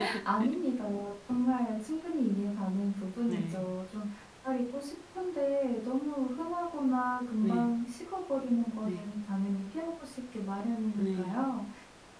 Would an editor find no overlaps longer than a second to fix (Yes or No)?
Yes